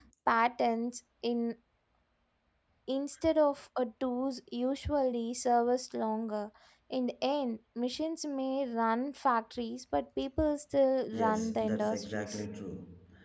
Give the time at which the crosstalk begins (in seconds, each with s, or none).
11.1 s